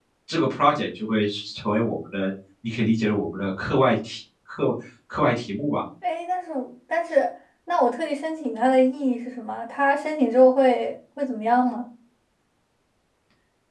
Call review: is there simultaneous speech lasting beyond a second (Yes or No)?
No